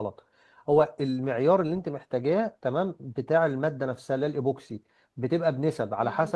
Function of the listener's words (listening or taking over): listening